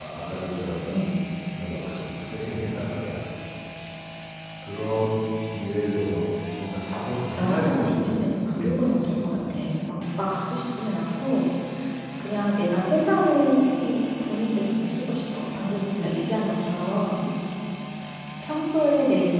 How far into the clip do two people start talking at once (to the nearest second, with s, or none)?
7 s